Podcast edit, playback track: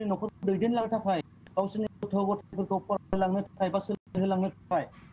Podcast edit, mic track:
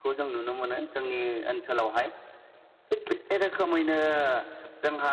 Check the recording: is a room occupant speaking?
Yes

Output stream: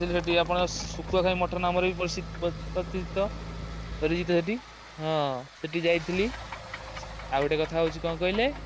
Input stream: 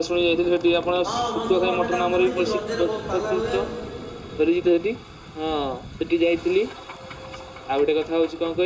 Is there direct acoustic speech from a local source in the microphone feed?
Yes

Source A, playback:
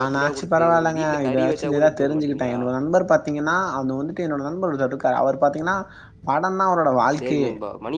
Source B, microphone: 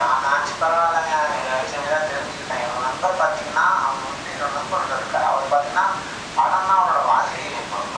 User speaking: No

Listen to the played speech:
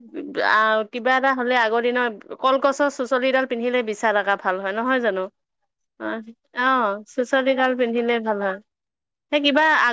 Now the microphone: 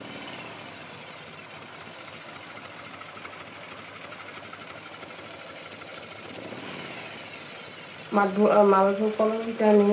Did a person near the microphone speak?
Yes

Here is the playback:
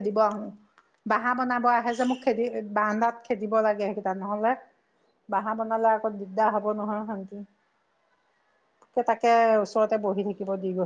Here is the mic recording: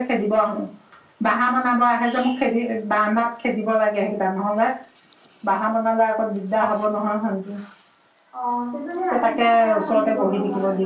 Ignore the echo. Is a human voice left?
Yes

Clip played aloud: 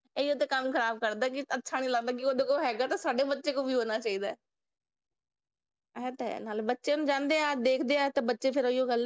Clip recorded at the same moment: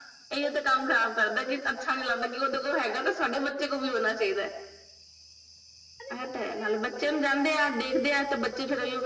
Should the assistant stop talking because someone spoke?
Yes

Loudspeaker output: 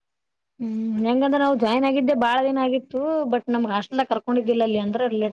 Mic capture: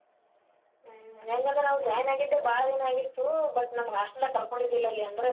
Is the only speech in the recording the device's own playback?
Yes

